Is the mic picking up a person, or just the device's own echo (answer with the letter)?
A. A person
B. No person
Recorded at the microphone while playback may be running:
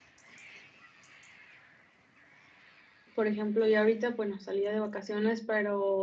A